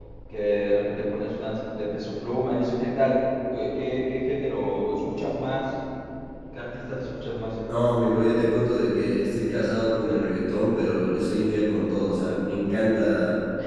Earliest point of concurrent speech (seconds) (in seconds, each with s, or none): none